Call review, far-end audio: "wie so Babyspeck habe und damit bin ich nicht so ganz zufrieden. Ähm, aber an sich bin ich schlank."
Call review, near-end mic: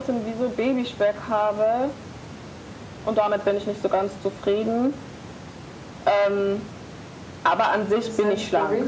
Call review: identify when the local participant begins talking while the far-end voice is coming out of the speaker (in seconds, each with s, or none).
7.9 s